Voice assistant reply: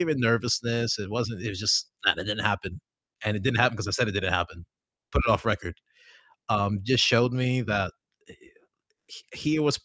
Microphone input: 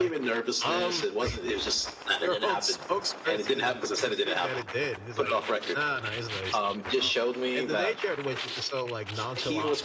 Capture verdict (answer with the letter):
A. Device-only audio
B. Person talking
B